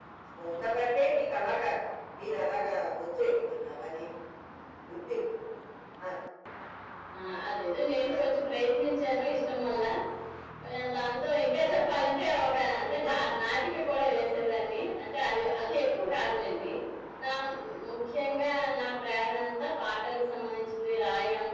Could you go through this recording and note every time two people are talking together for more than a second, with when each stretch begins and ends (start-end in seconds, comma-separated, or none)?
none